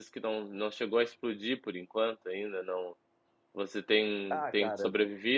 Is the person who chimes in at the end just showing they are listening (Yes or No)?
Yes